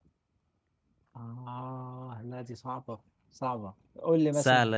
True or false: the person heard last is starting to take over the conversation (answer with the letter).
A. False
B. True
B